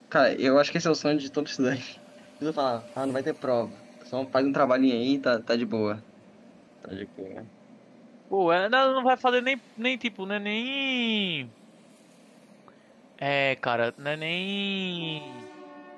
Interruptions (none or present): none